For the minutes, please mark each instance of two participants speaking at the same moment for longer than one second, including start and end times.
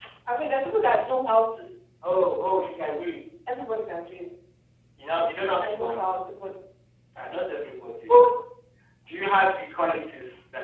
none

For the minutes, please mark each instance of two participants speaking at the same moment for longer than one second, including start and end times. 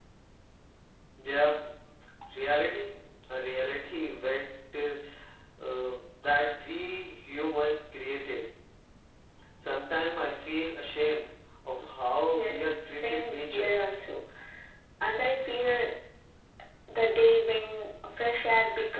12.3-13.7

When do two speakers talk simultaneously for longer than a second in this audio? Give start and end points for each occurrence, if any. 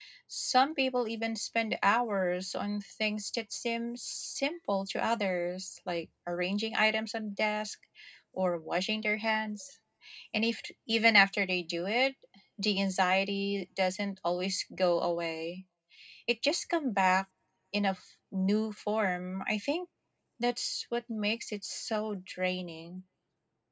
none

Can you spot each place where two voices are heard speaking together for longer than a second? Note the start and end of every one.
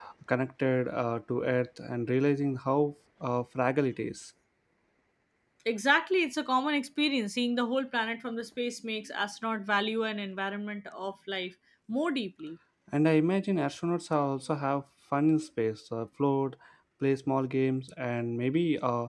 none

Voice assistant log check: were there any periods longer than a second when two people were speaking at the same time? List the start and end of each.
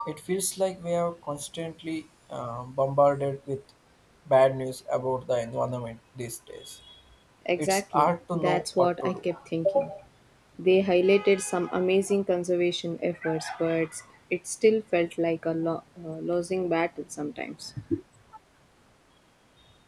7.6-9.2

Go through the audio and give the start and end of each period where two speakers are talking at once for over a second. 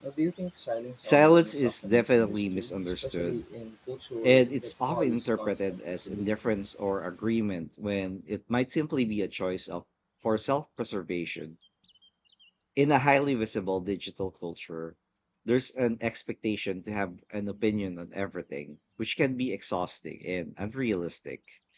1.0-3.4, 4.2-6.5

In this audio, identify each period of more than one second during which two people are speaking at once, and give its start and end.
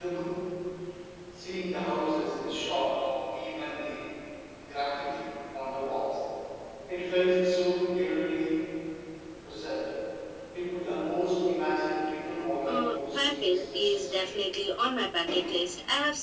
12.6-14.4

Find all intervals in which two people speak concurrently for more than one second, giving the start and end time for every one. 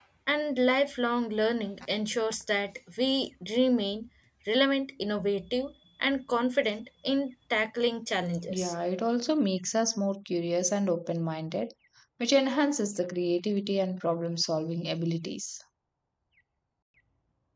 none

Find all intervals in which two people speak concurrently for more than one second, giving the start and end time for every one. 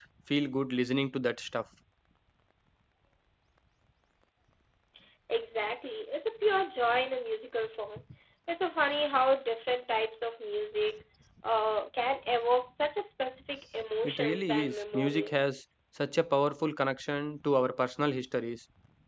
14.0-15.6

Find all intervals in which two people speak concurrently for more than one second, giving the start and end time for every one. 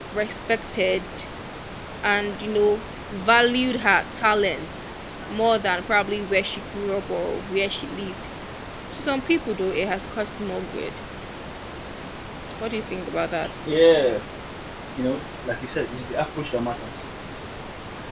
none

